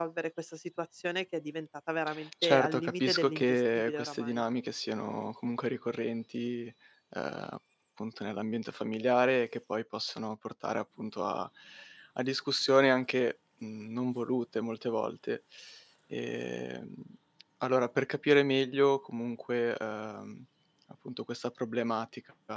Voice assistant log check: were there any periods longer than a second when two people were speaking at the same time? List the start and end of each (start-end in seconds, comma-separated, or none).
2.4-4.4